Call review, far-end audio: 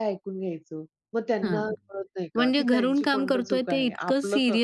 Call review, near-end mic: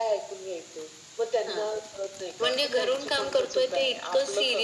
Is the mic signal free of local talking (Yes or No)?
Yes